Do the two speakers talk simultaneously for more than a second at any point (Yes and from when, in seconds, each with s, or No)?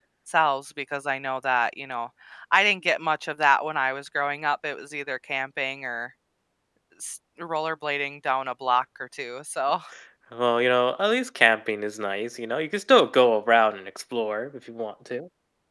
No